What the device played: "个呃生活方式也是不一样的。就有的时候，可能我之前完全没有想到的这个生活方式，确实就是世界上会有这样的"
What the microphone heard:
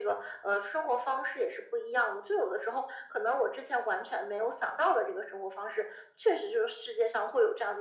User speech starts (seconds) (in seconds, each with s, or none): none